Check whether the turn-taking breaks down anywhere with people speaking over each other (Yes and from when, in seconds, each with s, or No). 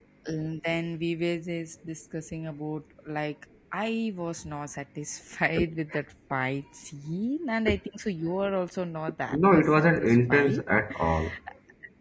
Yes, from 9.3 s